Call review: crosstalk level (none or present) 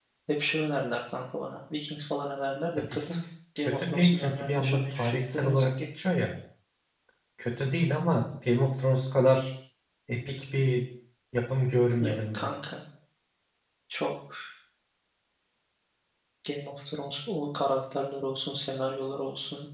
present